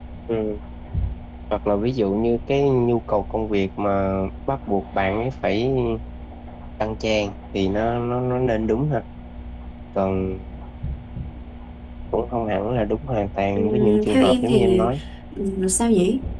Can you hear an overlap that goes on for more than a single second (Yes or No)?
Yes